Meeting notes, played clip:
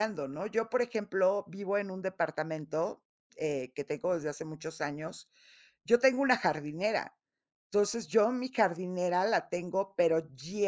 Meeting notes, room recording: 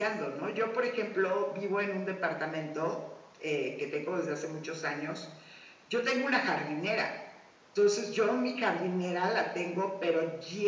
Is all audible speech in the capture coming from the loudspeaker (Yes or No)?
Yes